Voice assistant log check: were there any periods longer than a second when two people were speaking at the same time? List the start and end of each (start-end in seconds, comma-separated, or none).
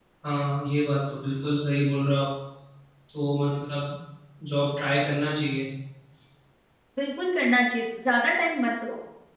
none